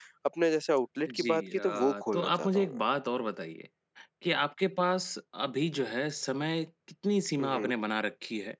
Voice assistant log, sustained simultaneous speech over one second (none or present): present